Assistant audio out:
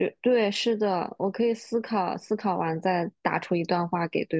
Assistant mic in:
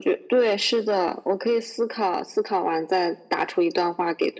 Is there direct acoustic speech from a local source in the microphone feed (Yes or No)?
No